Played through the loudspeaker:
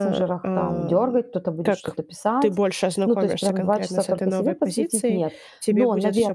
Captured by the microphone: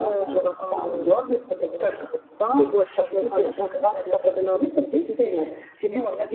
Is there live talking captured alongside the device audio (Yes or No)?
No